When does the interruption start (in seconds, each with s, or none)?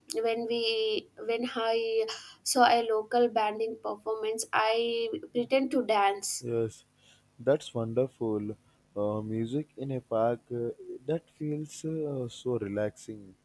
none